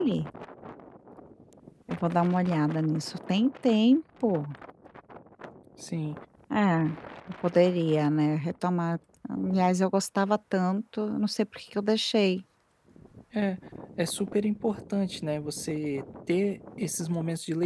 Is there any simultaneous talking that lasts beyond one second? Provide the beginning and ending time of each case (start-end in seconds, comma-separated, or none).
none